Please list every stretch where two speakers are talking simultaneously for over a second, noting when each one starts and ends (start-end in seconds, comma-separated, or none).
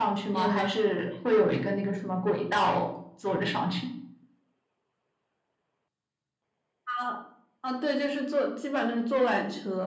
none